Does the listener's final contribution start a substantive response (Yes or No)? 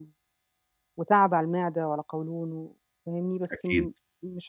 No